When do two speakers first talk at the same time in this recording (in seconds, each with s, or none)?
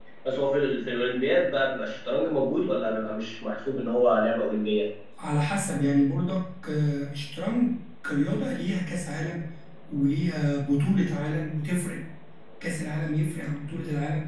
none